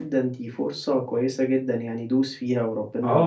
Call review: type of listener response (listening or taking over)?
taking over